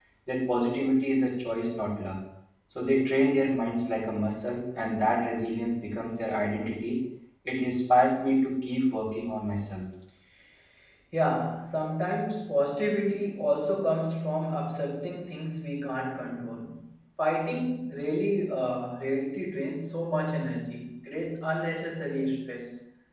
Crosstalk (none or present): none